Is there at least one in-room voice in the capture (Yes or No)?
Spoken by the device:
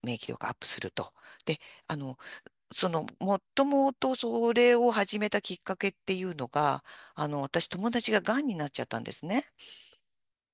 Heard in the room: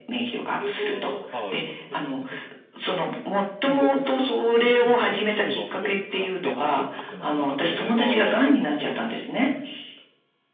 Yes